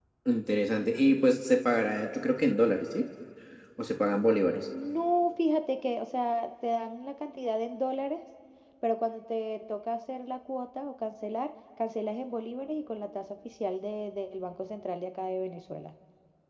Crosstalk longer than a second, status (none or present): none